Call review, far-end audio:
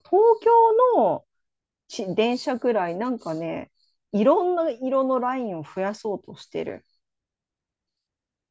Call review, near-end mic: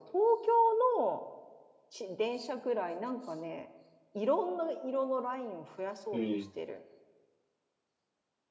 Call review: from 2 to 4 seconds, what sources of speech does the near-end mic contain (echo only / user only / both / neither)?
echo only